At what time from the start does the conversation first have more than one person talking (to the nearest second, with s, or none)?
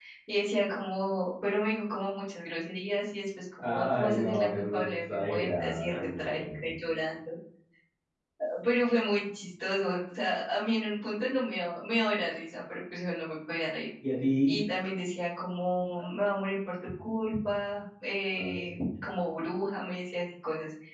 4 s